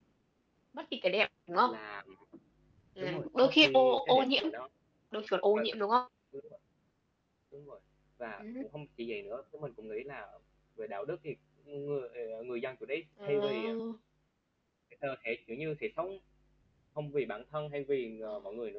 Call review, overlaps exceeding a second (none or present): present